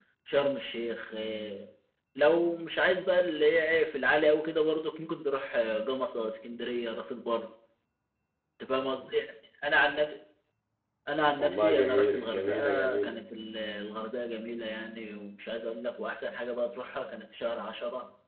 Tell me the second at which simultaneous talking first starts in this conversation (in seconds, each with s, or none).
11.4 s